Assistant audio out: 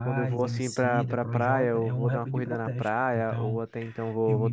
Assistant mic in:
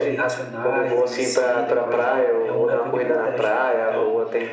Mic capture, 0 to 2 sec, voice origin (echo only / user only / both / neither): echo only